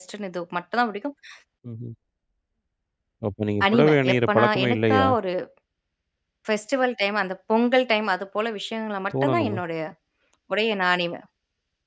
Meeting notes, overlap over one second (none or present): present